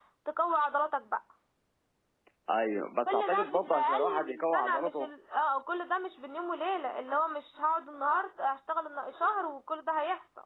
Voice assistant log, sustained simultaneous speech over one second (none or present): present